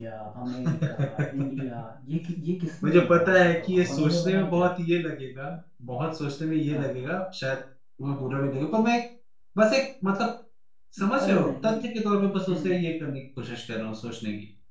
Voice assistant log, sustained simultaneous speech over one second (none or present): present